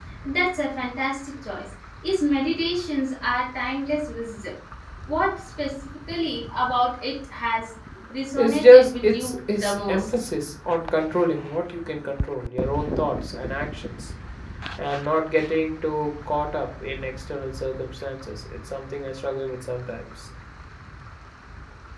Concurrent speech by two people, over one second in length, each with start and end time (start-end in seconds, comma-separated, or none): 8.4-10.1